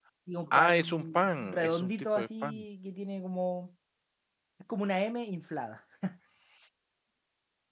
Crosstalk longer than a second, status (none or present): present